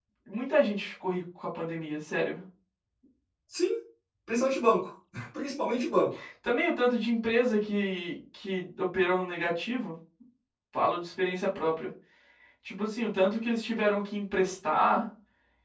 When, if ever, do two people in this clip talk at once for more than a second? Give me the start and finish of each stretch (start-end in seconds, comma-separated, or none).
none